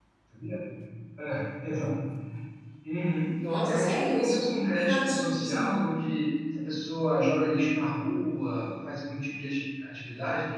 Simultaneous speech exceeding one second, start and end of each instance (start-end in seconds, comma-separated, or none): 3.4-6.0